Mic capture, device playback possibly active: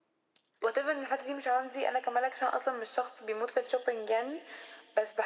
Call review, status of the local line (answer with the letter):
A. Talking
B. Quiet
B